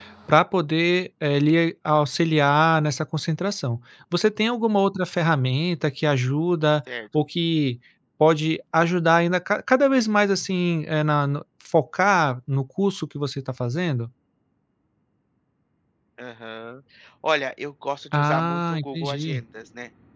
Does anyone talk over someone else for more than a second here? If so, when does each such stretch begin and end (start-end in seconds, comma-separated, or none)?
18.1-19.4